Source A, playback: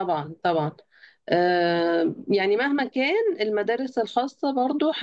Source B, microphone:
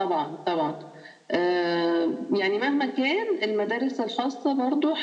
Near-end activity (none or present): none